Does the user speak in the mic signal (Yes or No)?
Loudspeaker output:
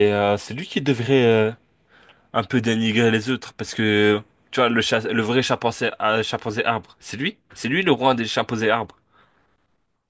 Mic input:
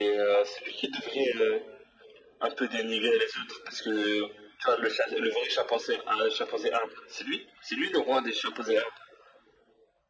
No